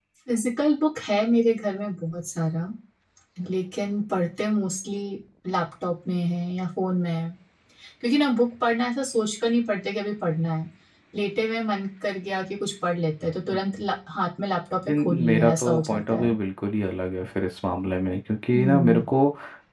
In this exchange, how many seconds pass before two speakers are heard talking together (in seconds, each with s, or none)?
14.9 s